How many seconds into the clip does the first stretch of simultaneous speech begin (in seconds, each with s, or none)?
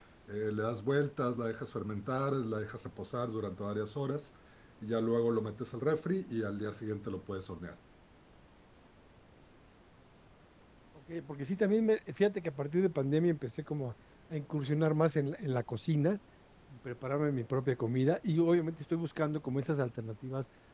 none